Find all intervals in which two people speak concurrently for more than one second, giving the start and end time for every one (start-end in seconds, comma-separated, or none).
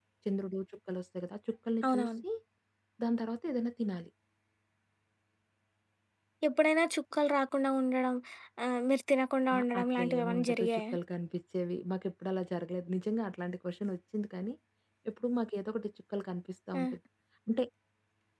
9.5-10.8